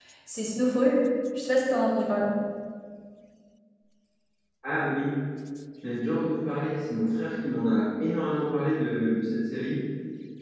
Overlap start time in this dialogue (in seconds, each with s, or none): none